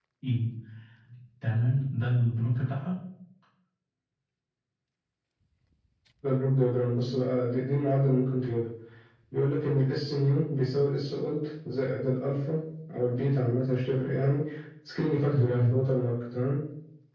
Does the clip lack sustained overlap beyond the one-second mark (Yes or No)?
Yes